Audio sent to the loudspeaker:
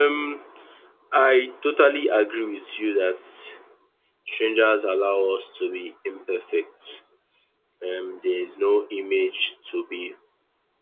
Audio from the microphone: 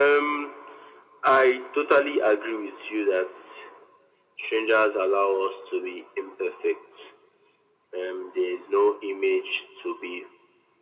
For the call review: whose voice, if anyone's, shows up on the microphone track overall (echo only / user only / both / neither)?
echo only